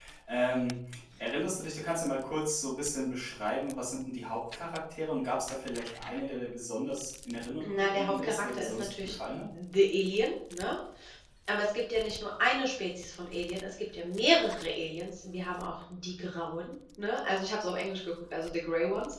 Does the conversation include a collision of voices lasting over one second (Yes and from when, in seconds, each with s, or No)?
Yes, from 7.6 s